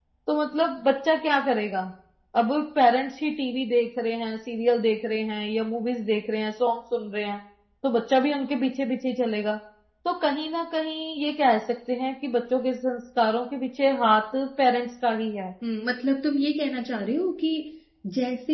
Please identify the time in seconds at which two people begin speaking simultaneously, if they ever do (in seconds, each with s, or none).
none